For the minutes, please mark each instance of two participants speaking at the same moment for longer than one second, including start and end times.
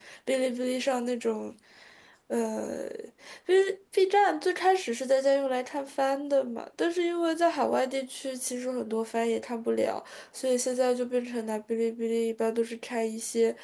none

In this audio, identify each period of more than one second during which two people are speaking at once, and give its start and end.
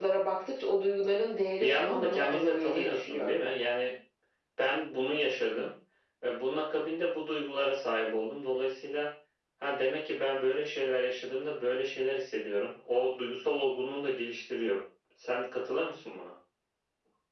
1.6-3.4

